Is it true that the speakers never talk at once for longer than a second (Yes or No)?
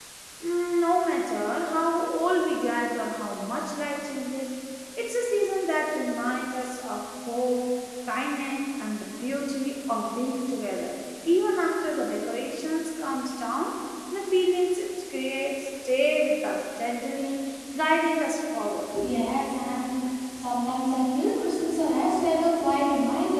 Yes